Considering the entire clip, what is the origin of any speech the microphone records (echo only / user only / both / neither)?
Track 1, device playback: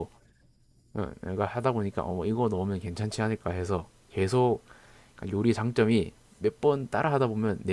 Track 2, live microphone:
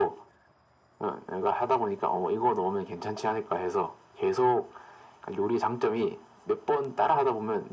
echo only